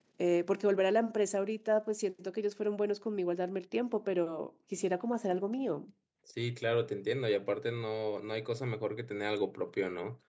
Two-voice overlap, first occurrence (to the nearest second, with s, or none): none